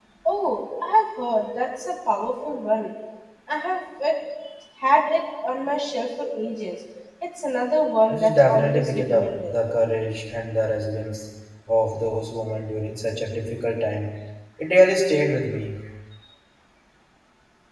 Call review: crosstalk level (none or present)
present